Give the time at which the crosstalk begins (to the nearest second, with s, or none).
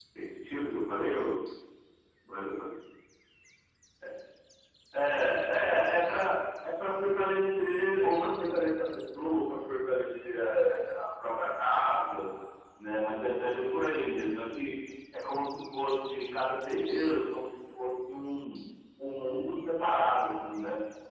none